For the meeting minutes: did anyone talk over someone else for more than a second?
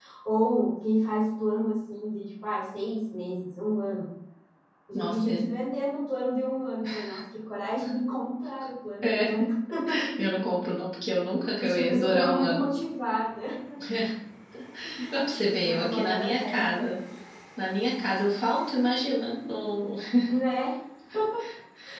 Yes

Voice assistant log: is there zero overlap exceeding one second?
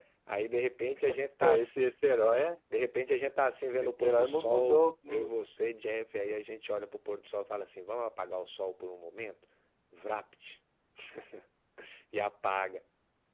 No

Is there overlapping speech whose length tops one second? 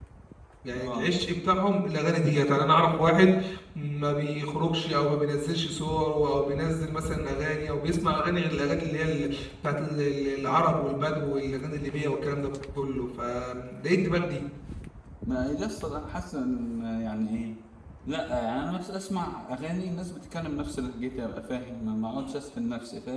No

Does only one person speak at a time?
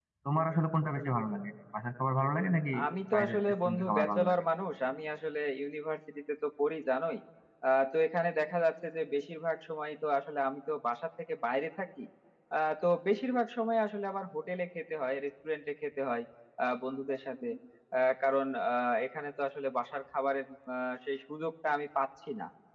No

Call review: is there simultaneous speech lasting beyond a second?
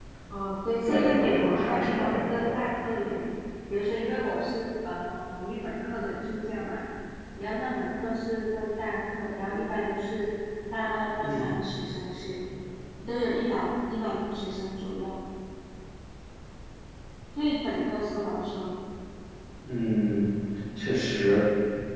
Yes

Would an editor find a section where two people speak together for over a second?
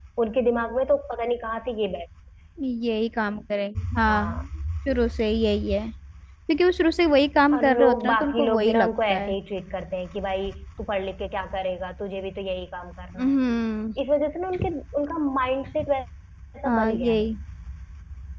Yes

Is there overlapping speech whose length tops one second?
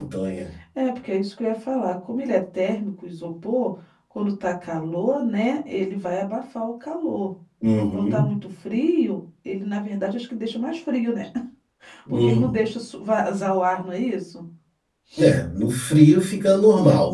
No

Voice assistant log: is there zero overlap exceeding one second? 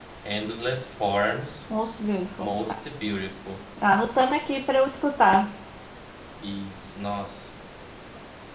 Yes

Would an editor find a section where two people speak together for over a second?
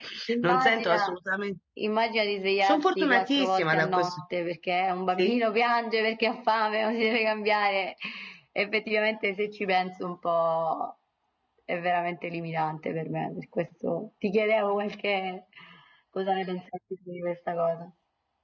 Yes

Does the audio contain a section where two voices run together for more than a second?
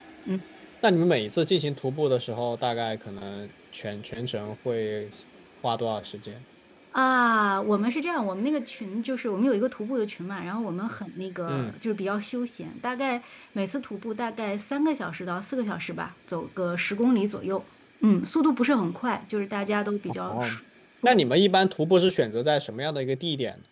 No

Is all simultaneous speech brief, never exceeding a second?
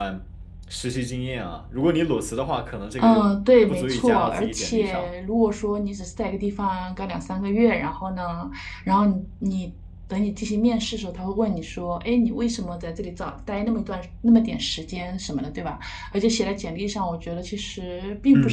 No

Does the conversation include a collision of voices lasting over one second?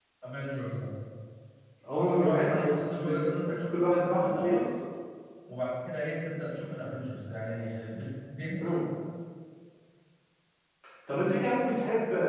Yes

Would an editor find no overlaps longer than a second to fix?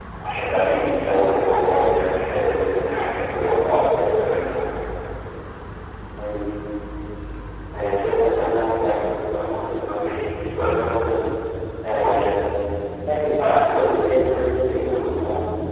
Yes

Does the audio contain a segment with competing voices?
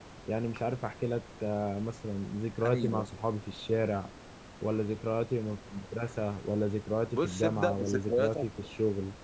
Yes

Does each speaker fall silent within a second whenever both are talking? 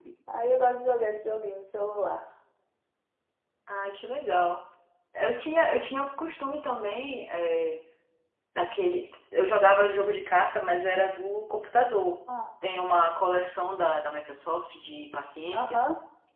Yes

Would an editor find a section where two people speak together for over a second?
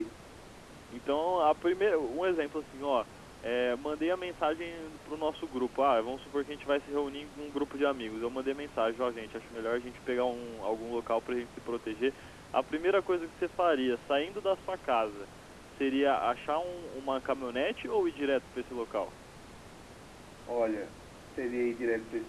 No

